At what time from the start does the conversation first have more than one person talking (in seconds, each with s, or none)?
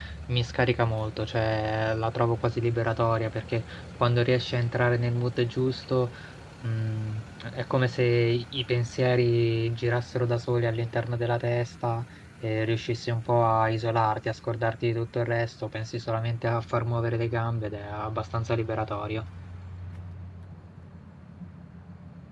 none